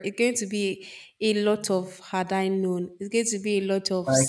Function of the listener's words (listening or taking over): taking over